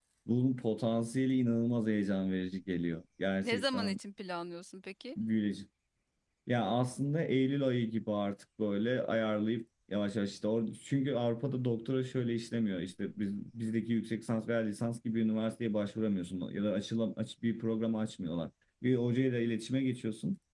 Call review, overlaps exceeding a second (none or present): none